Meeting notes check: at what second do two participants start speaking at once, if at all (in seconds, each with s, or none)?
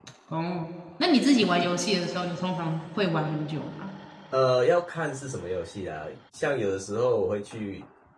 none